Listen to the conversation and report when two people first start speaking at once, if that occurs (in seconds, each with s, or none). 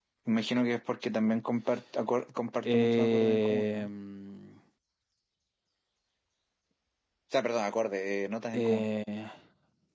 2.6 s